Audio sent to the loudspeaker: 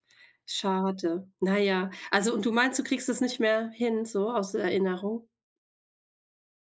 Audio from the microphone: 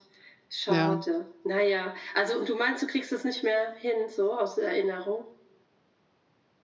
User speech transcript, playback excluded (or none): Ja.